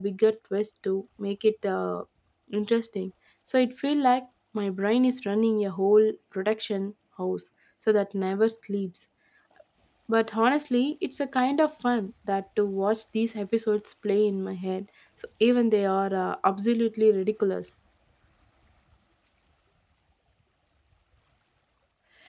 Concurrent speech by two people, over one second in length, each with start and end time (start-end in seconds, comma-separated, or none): none